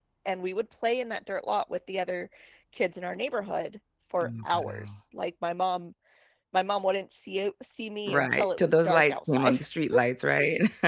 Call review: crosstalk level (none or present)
present